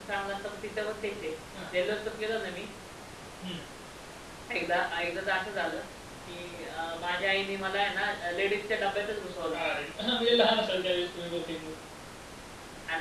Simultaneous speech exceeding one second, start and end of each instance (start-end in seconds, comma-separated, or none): none